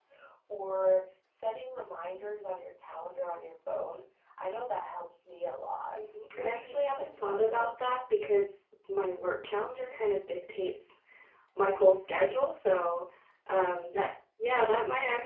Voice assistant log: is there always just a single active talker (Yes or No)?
No